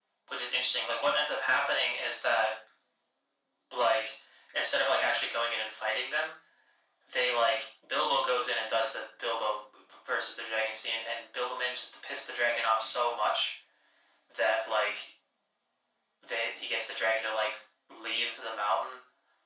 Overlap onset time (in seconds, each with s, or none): none